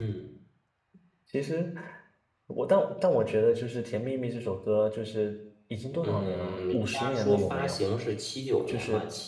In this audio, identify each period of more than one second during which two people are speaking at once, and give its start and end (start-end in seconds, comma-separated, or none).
6.0-7.8